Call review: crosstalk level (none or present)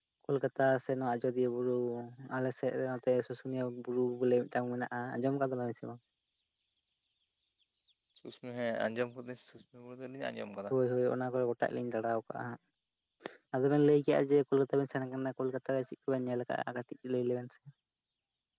none